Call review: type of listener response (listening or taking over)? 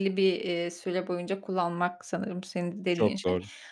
listening